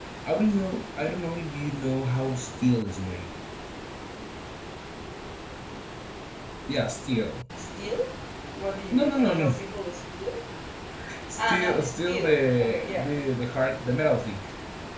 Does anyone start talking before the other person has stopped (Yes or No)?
Yes